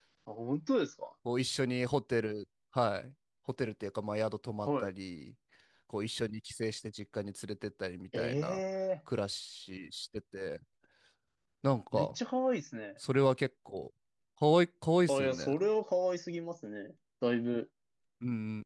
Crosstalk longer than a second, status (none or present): none